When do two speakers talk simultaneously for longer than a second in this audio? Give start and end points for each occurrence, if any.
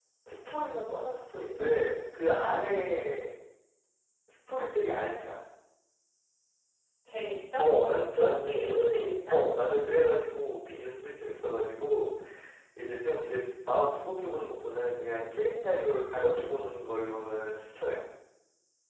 8.2-9.4

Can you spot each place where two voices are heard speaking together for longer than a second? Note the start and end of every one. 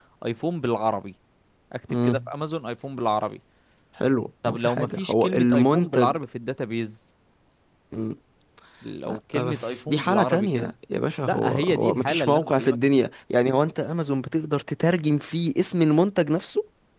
4.4-6.2, 9.1-10.7, 11.2-13.0

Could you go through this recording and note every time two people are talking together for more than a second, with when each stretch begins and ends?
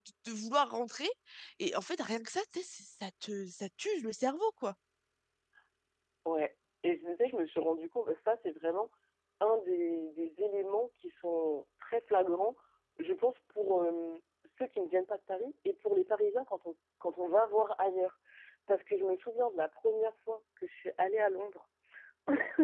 none

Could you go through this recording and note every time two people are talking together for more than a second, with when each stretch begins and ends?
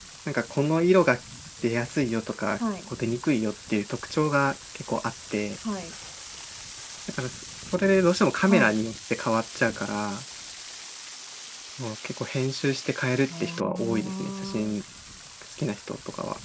13.4-14.8

